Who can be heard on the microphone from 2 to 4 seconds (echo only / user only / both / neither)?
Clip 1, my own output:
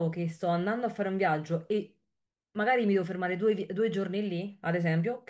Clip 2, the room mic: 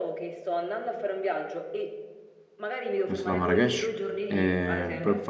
both